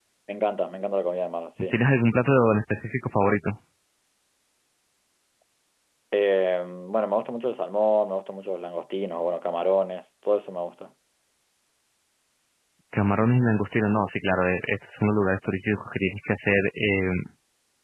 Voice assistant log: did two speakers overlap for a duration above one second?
No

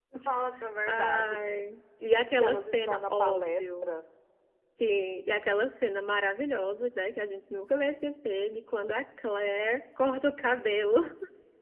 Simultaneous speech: Yes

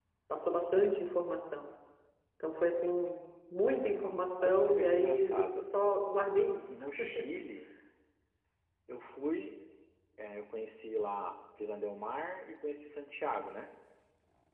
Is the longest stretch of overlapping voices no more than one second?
No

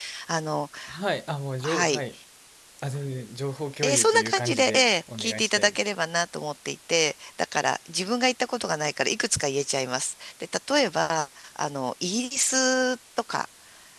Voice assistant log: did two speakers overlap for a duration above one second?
Yes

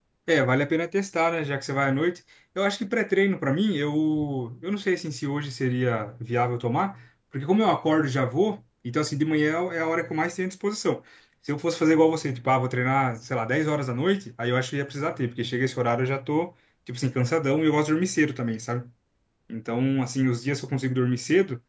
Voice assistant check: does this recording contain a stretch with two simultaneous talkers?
No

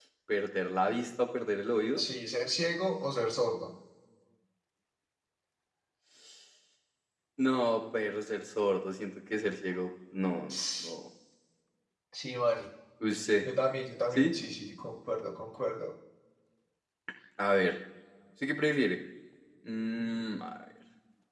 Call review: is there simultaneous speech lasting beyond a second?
No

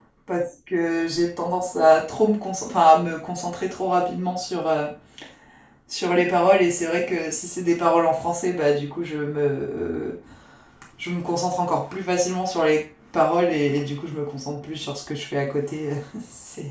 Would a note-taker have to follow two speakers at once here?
No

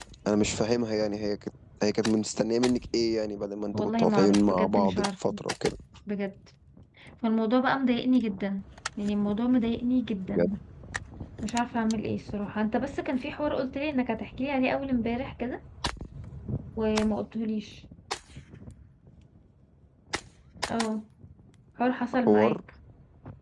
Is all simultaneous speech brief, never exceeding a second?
No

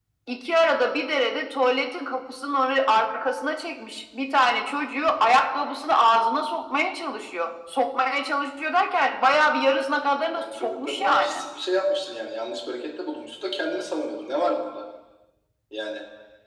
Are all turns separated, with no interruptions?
No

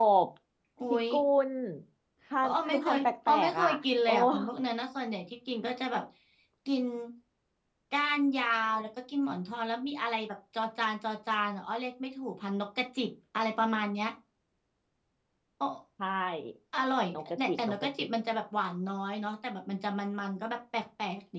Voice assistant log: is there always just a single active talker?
No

